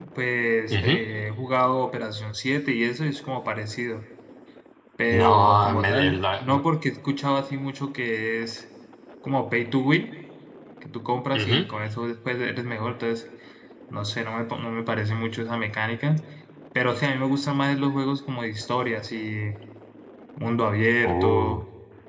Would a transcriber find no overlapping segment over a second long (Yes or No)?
No